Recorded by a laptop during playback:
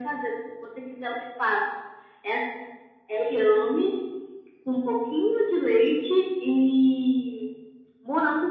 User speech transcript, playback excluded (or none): none